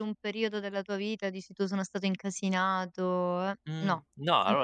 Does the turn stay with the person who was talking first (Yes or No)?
No